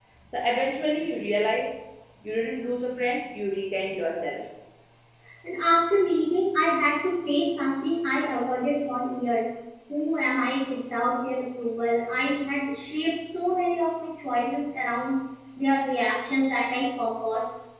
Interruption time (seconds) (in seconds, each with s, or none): none